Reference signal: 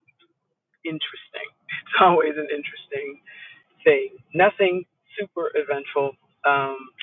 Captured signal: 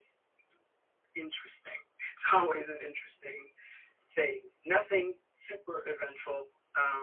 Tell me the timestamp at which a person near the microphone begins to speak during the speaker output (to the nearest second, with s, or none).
none